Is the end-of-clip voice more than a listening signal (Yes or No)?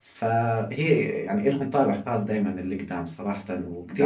No